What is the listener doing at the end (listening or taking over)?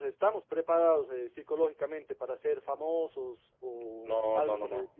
taking over